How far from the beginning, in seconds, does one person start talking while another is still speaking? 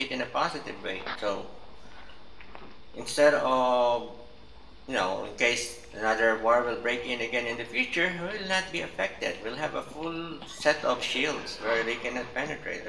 none

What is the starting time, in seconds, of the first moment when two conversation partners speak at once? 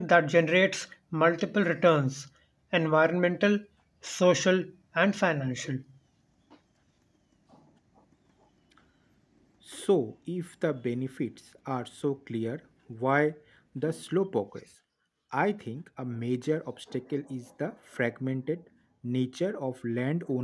none

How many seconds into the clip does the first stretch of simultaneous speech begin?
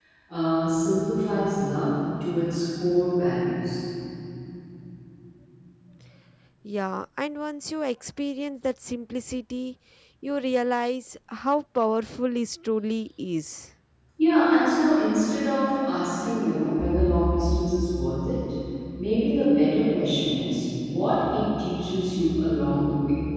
none

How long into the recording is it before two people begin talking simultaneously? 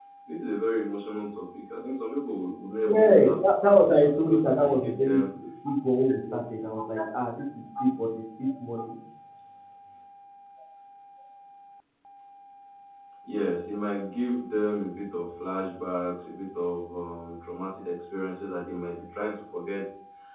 2.8 s

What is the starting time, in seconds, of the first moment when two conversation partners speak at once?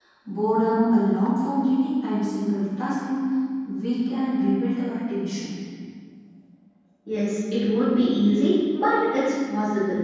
none

